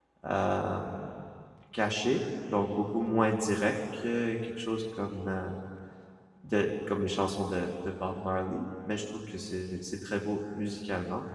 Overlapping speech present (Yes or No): No